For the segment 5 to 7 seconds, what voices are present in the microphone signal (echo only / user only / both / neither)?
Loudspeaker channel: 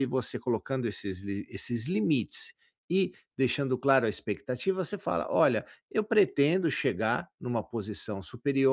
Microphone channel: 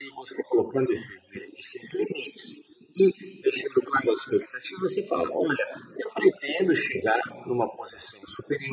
echo only